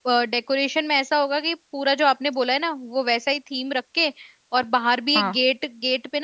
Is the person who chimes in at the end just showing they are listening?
Yes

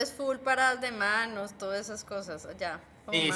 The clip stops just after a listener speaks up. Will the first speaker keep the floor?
No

